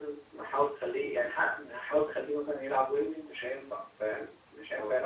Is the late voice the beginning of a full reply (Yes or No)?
Yes